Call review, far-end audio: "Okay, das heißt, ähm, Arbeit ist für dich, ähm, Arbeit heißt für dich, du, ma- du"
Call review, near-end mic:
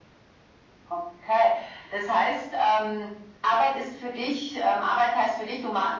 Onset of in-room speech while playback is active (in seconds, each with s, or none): none